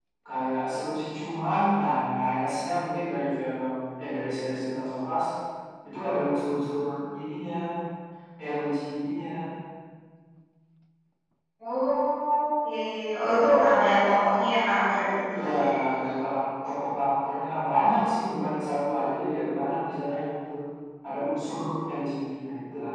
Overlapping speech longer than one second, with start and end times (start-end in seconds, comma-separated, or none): none